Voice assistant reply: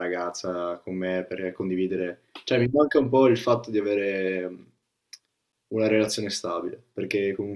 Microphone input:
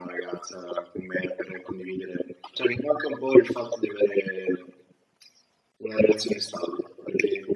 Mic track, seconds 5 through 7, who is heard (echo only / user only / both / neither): echo only